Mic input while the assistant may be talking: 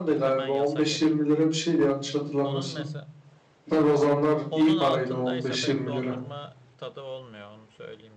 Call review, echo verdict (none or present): present